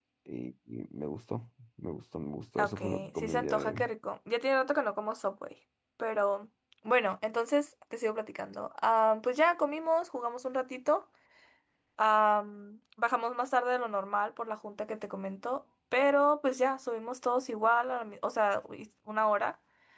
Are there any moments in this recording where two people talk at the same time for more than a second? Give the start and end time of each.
2.6-3.9

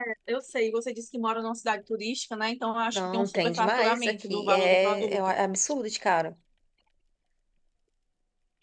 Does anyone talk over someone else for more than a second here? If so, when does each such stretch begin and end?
2.9-5.2

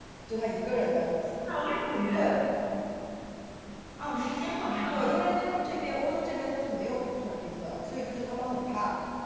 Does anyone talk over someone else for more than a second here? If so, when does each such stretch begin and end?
none

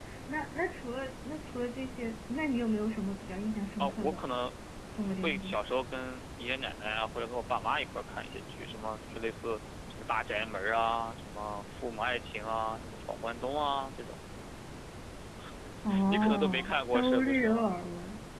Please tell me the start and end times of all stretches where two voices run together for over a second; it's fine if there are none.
16.1-17.6

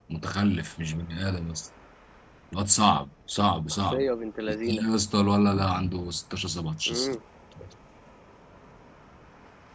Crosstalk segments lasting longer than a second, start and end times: none

